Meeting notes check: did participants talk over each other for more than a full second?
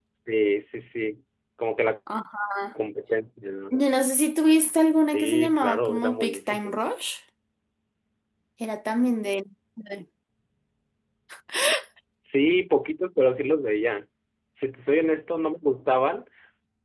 Yes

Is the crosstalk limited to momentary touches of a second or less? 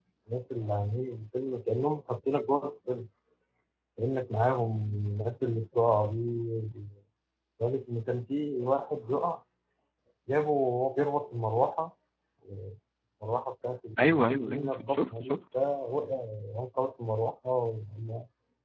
No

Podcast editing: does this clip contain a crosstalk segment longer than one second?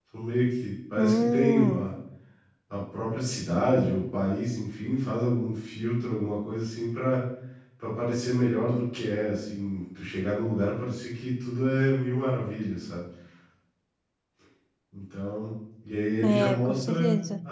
Yes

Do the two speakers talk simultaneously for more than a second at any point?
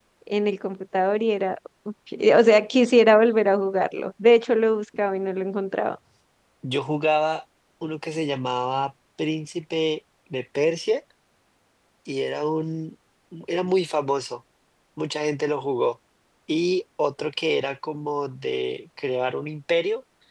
No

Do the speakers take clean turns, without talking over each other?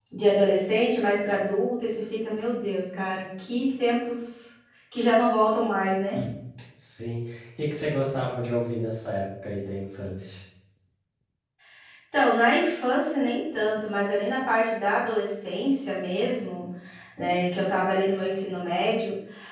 Yes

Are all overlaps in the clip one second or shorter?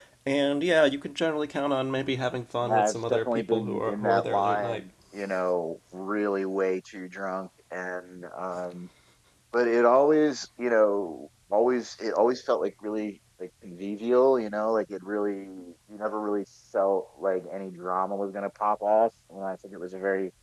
No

